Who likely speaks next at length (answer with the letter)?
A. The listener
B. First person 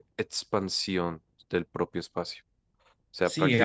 A